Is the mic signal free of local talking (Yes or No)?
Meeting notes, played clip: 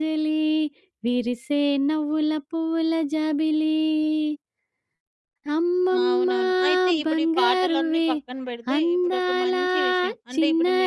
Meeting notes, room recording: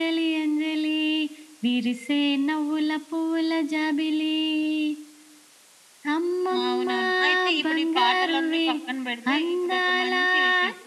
Yes